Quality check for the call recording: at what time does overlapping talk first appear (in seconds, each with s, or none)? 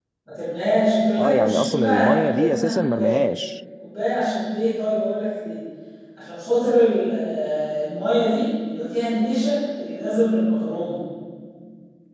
1.2 s